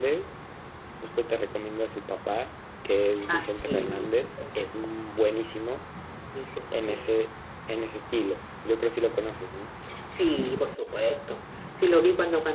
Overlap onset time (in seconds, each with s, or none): 3.3 s